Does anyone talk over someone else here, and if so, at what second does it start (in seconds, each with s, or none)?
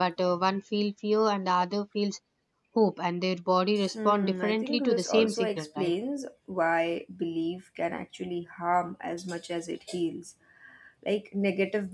3.9 s